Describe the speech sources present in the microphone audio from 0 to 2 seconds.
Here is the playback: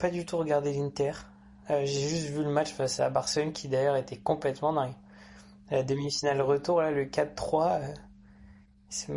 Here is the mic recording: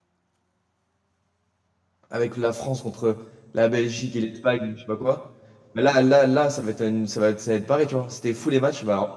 neither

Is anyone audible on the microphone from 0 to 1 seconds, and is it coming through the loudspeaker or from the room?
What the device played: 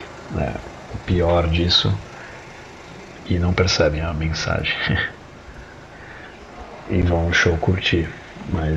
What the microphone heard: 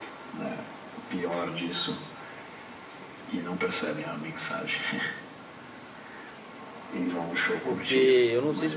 echo only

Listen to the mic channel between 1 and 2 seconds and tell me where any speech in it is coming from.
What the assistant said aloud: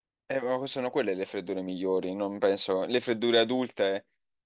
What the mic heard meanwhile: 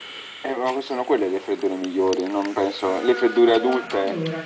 echo only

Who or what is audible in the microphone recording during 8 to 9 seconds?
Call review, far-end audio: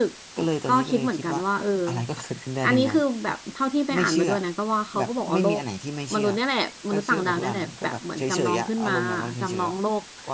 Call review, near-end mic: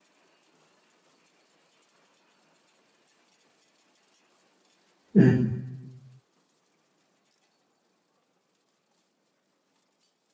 neither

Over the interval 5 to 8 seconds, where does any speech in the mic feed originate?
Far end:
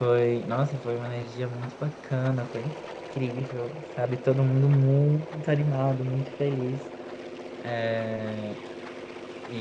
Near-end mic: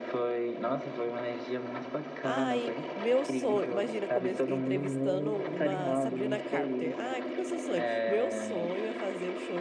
both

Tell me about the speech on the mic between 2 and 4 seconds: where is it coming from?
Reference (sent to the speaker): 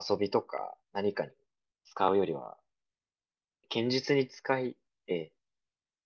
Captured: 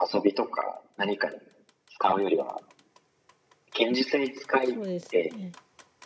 echo only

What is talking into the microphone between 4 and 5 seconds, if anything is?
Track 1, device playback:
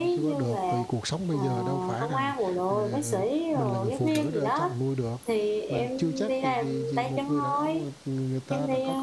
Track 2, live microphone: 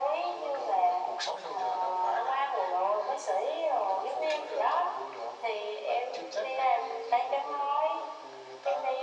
echo only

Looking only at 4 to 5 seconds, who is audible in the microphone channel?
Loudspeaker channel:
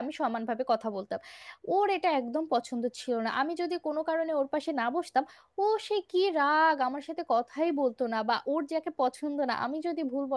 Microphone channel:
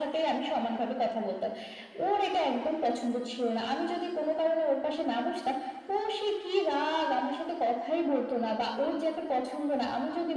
echo only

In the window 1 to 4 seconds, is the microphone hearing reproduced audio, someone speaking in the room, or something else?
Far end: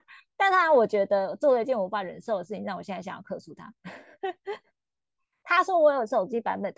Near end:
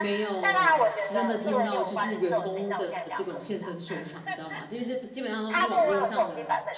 both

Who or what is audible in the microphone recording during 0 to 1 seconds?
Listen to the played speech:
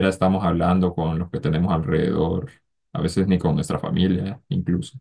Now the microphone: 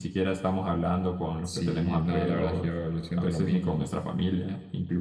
echo only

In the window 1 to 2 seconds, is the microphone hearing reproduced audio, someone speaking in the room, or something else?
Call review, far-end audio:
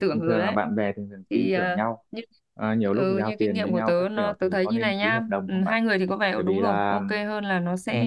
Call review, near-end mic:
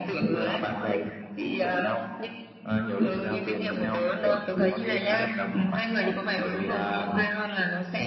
echo only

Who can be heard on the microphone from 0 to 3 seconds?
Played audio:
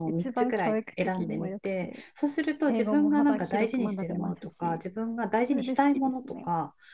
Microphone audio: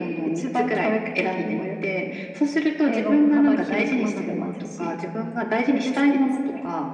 echo only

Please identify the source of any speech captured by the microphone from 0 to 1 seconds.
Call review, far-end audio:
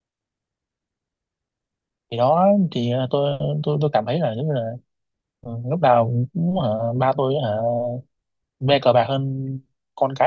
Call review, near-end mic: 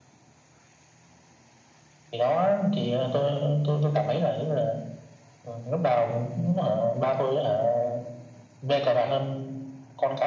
neither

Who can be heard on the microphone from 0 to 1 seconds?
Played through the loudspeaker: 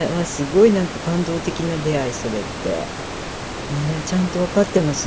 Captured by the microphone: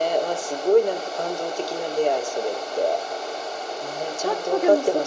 echo only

